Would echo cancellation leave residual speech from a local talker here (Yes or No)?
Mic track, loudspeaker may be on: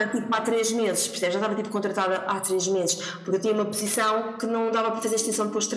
No